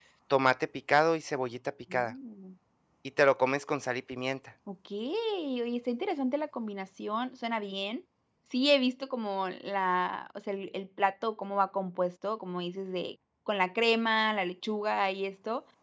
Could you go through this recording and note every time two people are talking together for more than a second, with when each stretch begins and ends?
none

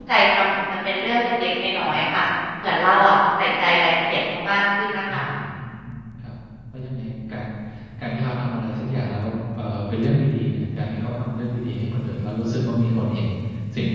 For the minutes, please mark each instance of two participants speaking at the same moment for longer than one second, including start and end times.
none

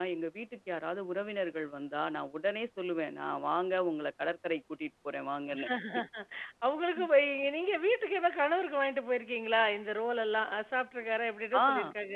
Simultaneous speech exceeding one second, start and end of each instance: none

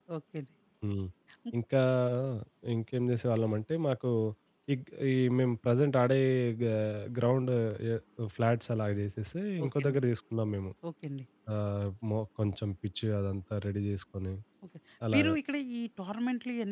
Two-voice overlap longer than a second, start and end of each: none

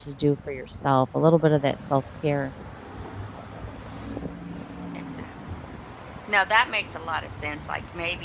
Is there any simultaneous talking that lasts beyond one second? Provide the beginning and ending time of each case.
none

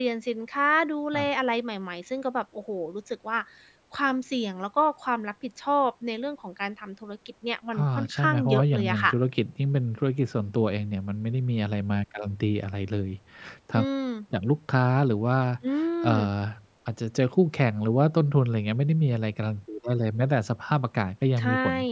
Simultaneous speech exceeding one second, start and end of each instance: 7.8-9.1

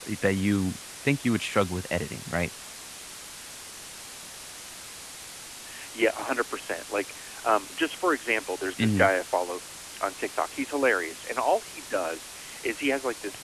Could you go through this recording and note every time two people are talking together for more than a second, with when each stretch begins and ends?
none

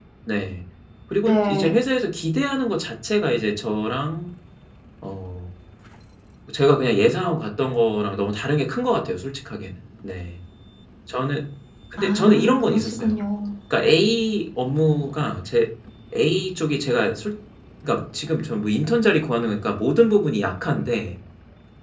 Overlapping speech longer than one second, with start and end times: 12.0-13.2

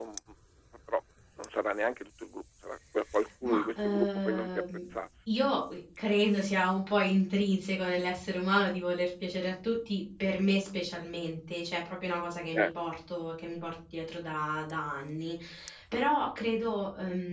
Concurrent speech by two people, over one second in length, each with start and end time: 3.4-4.6

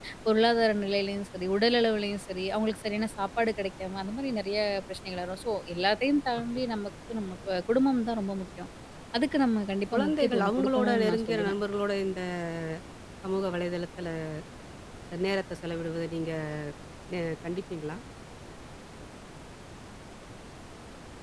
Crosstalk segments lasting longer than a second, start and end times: 9.9-11.5

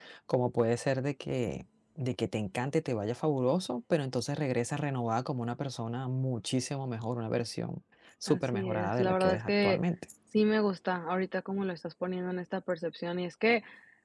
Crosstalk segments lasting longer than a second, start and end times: 8.3-9.8

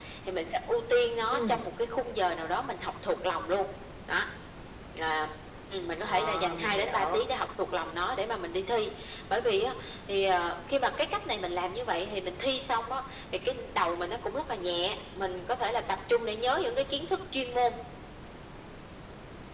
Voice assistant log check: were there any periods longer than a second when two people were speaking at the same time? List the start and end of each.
6.0-7.2

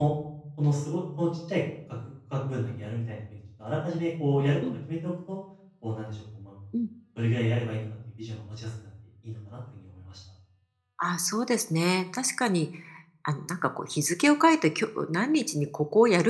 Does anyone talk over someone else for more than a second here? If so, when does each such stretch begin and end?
none

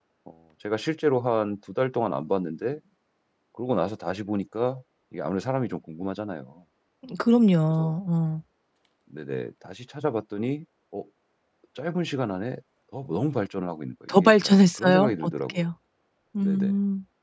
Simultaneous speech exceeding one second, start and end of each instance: 14.1-15.6

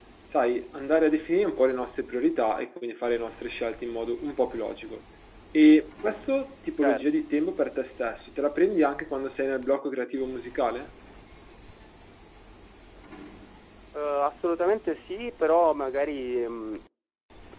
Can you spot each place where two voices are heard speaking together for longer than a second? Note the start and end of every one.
none

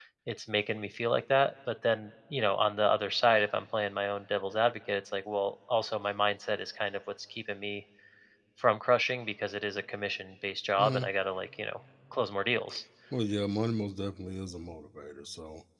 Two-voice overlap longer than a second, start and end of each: none

